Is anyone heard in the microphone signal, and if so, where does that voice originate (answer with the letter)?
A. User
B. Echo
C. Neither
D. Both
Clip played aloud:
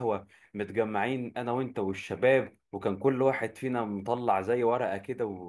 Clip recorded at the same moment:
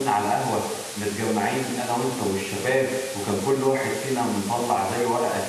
B